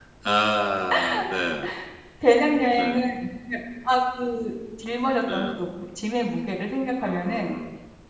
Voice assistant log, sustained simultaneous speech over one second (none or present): none